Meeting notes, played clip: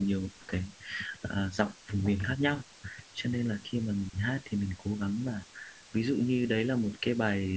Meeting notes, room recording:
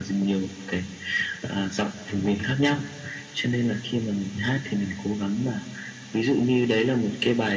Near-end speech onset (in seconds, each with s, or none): none